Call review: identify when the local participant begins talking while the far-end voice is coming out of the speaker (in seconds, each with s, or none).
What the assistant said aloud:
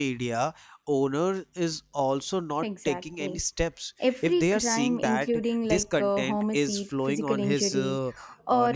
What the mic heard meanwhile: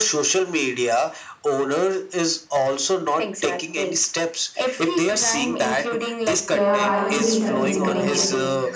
6.5 s